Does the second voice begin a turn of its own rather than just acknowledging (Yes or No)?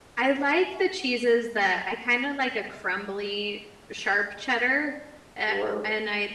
No